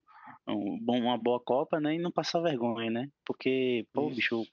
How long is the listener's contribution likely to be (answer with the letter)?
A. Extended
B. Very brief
B